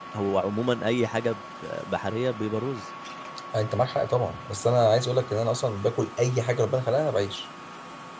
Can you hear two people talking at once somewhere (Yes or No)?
No